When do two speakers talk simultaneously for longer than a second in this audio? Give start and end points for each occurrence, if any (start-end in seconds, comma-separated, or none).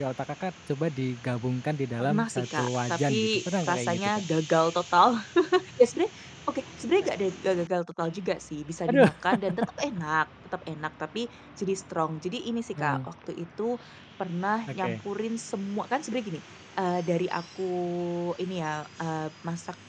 2.0-4.2